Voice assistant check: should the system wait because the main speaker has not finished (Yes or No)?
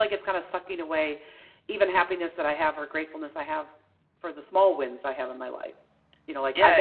Yes